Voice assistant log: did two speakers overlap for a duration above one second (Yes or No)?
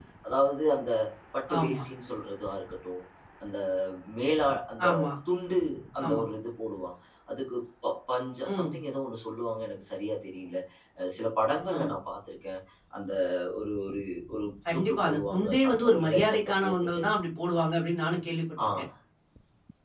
Yes